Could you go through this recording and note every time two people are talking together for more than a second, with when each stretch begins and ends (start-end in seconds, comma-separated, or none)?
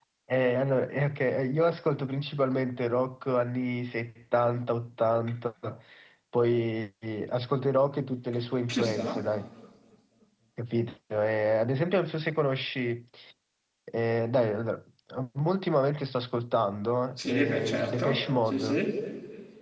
17.2-18.8